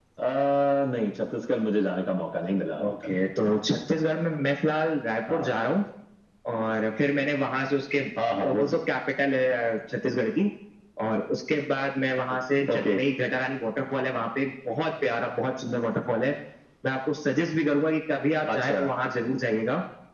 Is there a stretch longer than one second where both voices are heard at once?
No

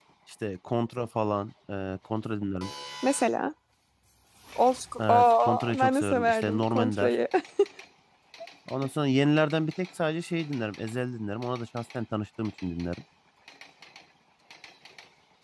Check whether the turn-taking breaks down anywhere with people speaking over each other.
Yes, from 5.1 s

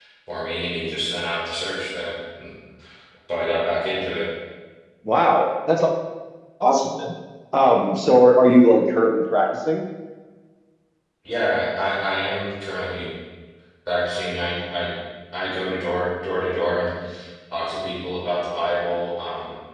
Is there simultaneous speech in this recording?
No

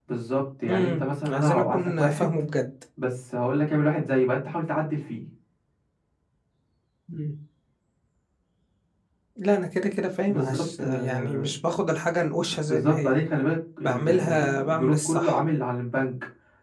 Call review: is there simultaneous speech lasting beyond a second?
Yes, from 0.7 s

